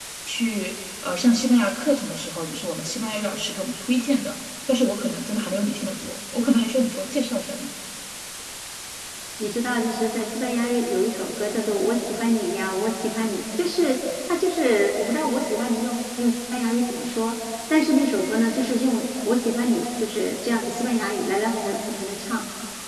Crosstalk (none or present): none